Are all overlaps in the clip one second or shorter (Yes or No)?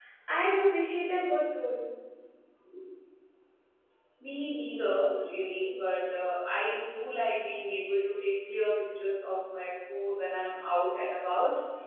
Yes